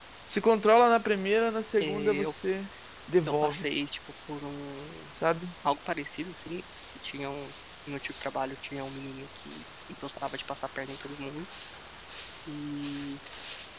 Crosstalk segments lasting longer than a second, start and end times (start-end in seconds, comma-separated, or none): none